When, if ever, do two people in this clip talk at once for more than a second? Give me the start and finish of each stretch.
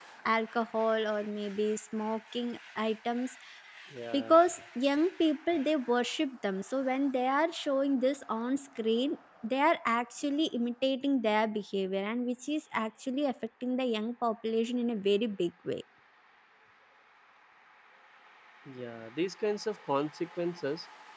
none

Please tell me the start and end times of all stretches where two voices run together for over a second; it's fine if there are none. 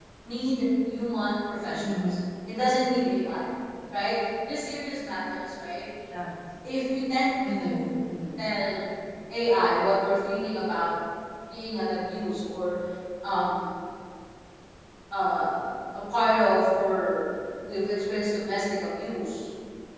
none

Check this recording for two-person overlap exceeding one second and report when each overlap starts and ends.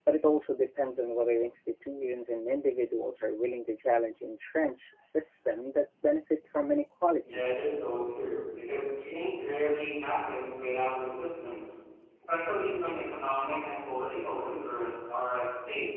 none

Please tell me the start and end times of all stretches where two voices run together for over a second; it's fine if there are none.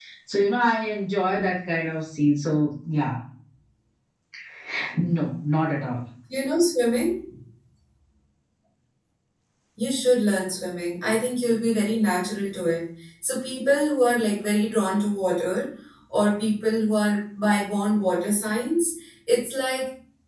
none

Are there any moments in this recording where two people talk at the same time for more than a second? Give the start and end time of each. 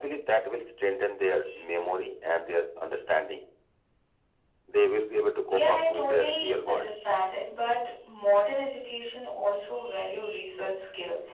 5.5-6.9

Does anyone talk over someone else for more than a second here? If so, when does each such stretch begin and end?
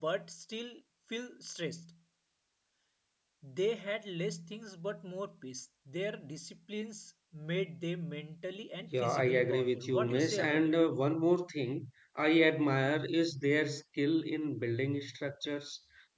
8.9-11.1

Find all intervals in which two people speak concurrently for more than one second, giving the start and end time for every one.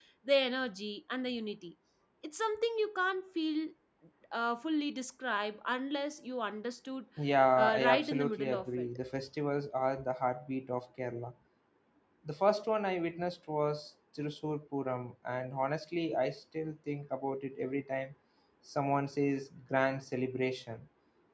7.5-8.9

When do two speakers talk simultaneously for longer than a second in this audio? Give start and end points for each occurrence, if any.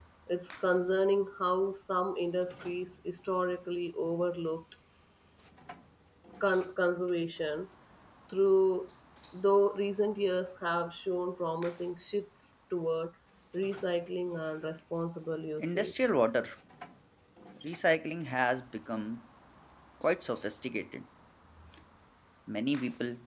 none

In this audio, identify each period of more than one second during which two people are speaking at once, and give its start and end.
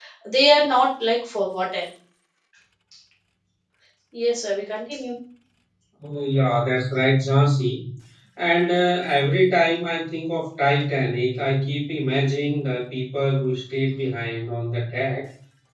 none

